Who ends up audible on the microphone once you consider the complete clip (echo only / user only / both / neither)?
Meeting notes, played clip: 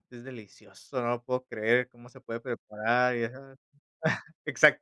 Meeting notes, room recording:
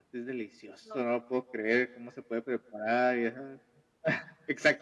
both